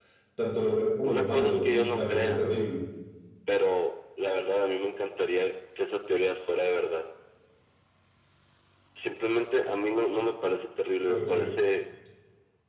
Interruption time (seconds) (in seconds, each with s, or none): 1.0 s